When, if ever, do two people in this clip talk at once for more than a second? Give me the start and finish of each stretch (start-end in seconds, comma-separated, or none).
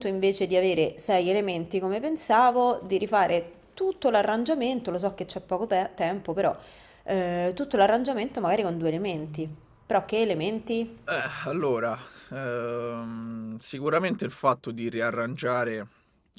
none